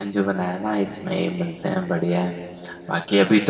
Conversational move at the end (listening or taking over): listening